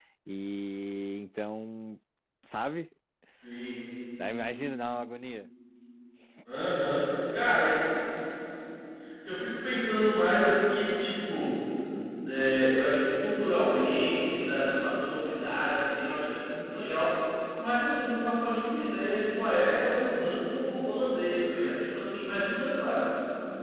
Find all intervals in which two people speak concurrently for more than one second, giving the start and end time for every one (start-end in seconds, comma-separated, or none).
none